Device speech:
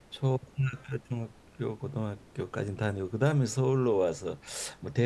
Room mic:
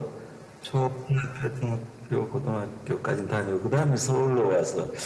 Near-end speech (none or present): none